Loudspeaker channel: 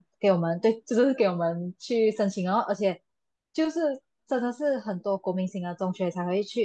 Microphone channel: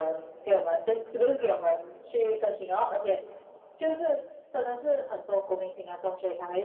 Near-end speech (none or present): none